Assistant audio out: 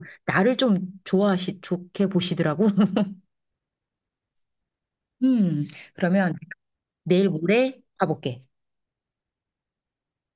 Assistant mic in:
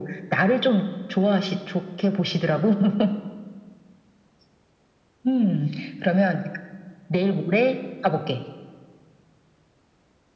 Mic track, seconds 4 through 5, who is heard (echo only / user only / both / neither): neither